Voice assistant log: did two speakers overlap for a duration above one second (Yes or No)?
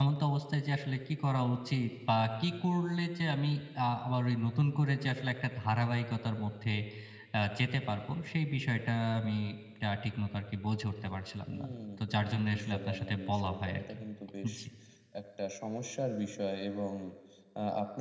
Yes